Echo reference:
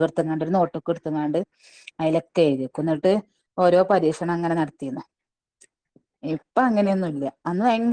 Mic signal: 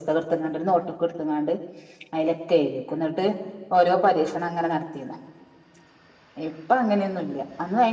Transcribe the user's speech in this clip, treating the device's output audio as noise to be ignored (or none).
none